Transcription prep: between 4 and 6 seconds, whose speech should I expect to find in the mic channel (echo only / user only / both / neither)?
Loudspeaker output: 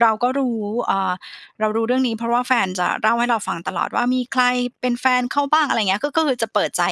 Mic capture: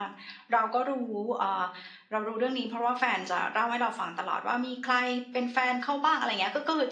echo only